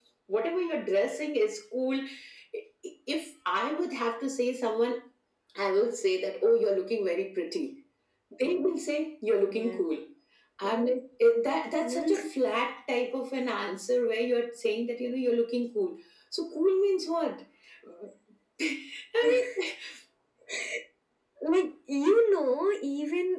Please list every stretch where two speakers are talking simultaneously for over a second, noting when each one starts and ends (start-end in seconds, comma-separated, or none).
none